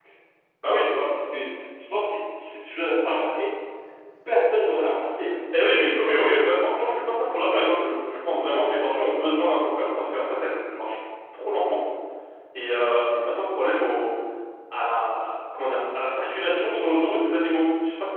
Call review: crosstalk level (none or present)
none